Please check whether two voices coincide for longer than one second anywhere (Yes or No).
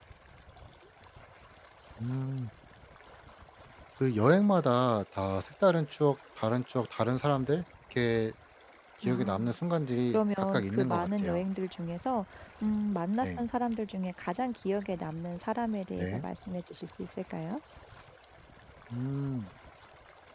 Yes